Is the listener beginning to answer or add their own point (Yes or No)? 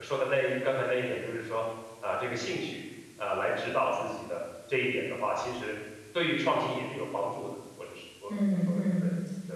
Yes